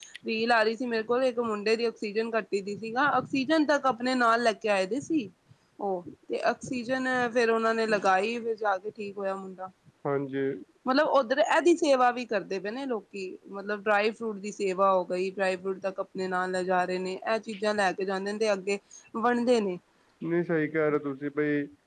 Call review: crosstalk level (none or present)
none